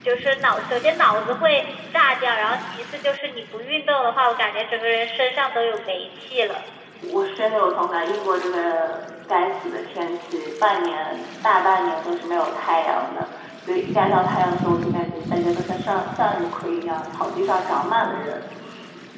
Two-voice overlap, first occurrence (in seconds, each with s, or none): none